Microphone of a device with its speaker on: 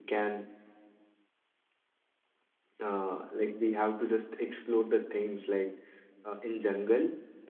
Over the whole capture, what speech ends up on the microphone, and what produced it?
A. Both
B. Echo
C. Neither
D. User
D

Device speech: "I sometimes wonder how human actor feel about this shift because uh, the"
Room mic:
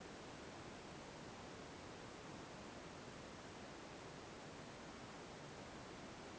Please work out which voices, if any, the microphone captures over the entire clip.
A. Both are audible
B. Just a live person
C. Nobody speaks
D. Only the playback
C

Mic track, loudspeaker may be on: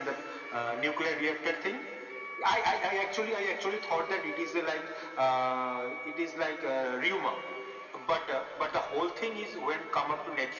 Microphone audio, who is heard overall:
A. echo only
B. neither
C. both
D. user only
A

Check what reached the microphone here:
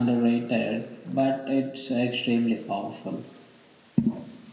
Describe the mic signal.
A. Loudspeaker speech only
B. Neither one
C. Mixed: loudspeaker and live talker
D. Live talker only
A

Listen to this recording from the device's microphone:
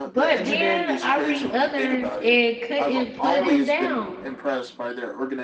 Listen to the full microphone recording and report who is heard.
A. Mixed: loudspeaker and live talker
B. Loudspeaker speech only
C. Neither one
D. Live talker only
A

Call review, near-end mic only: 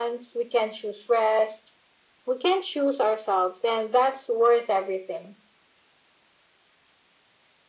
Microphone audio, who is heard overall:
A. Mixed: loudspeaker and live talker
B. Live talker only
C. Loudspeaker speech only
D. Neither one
C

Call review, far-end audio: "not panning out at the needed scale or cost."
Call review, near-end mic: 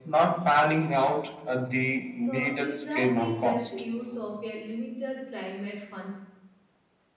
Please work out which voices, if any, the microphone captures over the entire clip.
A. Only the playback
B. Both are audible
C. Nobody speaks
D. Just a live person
B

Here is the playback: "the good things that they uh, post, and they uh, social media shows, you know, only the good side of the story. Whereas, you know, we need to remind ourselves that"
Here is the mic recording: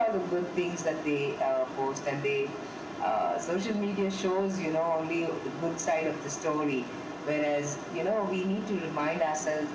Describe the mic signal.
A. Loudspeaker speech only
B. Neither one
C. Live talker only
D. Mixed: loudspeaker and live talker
A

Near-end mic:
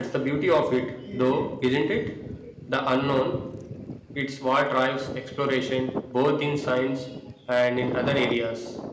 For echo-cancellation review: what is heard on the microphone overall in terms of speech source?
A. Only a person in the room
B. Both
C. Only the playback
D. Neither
A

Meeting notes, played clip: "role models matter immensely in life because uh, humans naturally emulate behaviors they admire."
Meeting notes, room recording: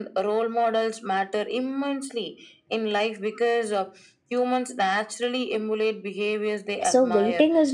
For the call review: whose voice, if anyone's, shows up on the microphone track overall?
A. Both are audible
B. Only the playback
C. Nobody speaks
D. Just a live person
A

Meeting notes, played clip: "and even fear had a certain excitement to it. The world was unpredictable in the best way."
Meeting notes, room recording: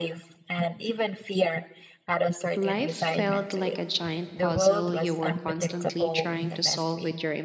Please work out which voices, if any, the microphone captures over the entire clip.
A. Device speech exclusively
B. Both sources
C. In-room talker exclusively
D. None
B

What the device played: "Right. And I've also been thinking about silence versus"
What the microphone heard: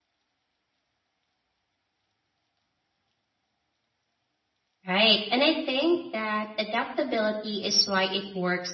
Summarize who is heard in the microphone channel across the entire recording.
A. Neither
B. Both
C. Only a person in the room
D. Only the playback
C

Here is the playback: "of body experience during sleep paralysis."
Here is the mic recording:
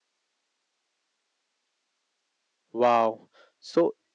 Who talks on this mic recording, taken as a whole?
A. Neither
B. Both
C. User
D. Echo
C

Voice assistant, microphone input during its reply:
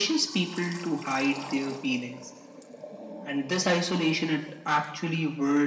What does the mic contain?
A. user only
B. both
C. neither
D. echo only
D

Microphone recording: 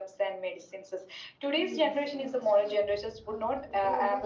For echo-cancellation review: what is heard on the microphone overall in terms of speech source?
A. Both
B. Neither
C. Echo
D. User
A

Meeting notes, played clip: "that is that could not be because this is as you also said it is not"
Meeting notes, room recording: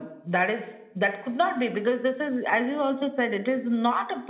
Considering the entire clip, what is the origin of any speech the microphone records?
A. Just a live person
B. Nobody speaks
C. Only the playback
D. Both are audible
C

